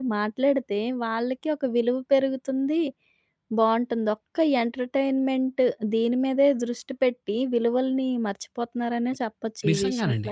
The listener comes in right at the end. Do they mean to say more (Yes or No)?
Yes